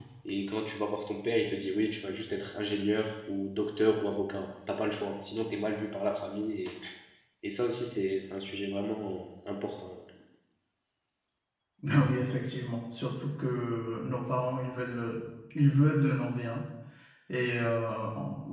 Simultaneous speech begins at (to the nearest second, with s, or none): none